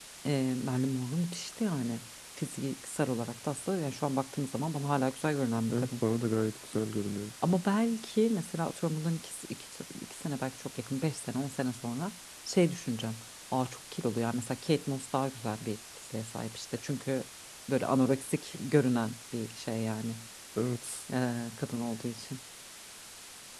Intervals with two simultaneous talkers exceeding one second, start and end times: none

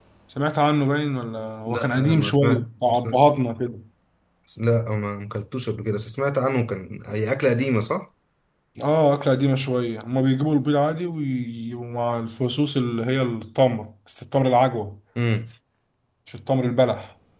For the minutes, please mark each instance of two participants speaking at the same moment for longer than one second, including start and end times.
1.7-3.2

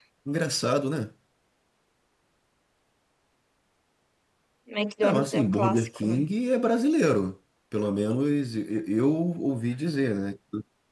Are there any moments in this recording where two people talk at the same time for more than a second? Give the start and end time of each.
5.0-6.2

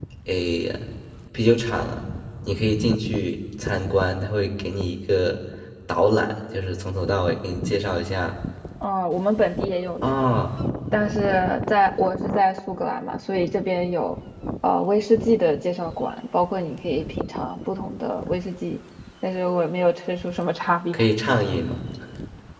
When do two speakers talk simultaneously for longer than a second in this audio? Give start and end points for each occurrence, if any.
none

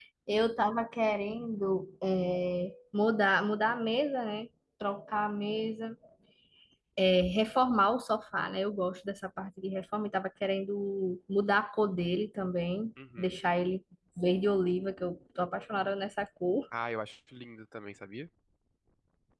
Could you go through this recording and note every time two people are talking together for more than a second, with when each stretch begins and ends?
none

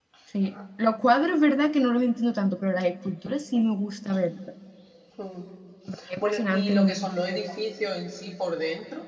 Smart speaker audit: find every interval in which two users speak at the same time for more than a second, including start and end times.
6.2-7.4

